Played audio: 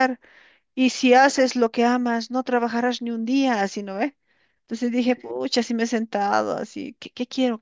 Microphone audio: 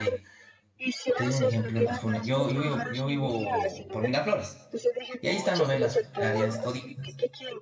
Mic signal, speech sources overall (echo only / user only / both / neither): both